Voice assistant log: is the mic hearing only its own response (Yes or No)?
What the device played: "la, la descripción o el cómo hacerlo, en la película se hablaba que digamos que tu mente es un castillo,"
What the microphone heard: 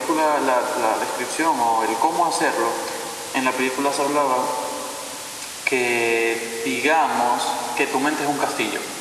Yes